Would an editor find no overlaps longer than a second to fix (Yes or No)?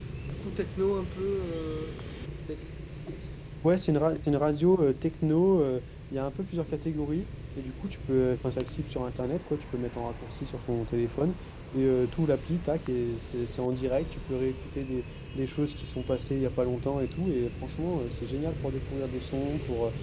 Yes